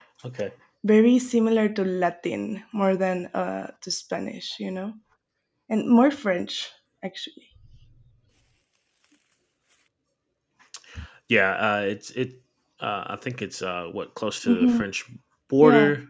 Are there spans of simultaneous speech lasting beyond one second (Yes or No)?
No